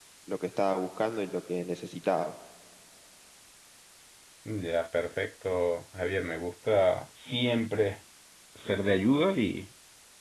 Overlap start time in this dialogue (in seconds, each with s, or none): none